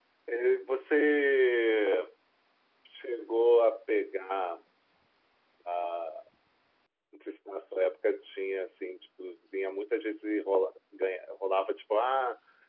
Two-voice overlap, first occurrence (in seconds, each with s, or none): none